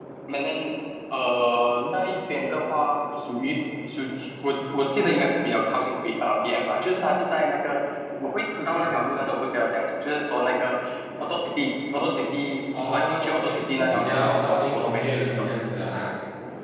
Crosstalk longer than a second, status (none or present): present